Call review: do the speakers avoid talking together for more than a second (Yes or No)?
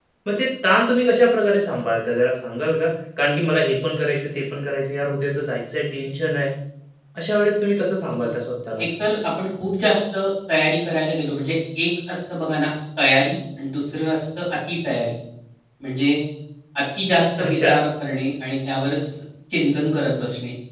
Yes